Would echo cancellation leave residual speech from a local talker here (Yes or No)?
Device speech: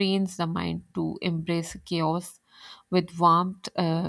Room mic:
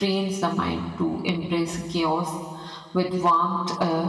No